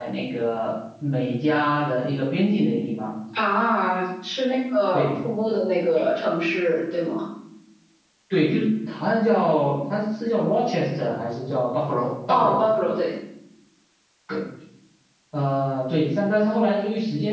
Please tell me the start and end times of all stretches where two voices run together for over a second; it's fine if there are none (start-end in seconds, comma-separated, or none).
none